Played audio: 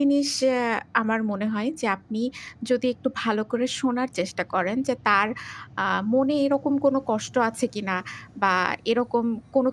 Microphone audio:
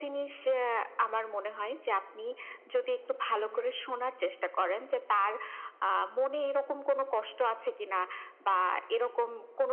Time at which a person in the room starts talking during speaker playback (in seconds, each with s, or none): 3.3 s